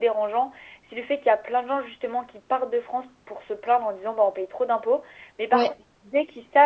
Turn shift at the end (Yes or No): No